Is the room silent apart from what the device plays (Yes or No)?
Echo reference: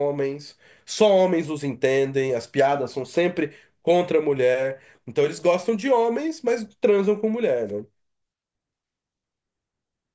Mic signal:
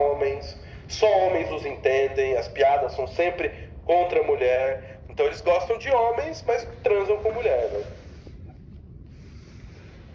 Yes